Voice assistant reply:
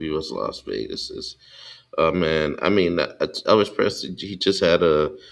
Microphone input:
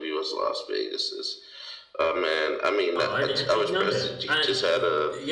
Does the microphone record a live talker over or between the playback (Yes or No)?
Yes